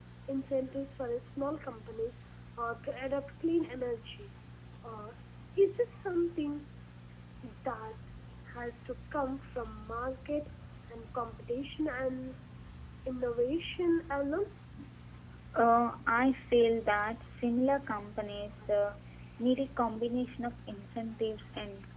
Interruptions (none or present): none